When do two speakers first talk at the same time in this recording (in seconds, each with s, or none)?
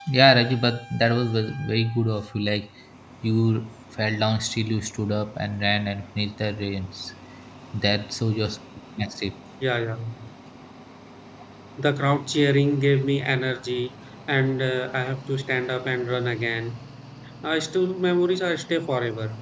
none